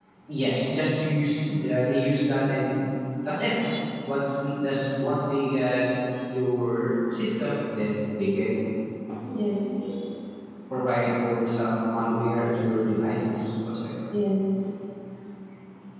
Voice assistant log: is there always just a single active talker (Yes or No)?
Yes